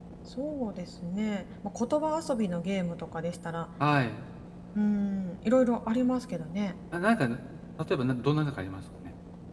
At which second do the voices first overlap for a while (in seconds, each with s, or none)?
none